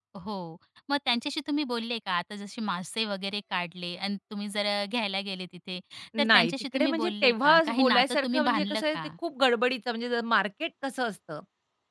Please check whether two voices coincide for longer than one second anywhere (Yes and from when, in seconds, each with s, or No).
Yes, from 6.2 s